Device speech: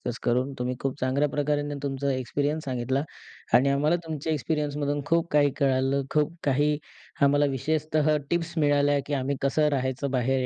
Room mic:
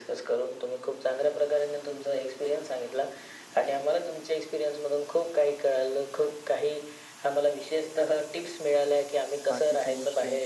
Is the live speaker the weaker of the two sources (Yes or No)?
Yes